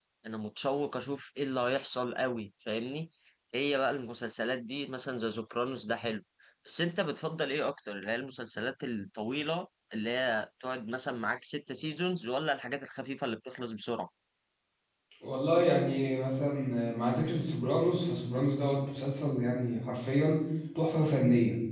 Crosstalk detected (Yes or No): No